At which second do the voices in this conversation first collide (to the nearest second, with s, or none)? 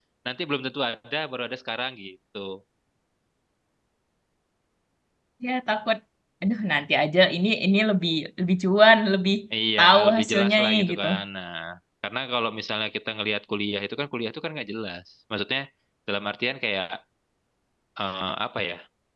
10 s